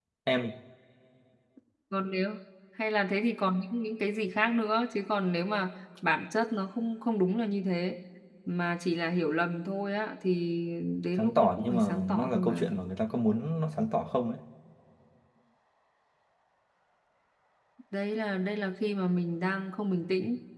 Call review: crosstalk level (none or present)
present